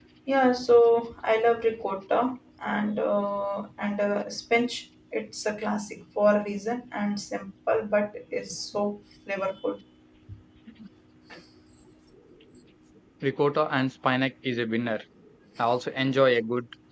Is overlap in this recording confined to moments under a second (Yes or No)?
Yes